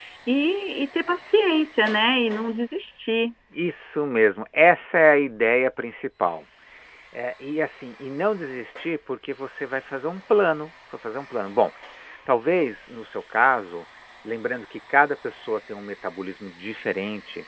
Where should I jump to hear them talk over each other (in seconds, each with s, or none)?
none